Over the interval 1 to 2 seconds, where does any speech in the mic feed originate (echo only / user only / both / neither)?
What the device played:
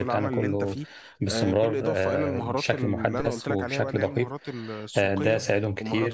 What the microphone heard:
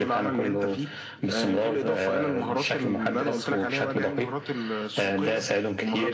echo only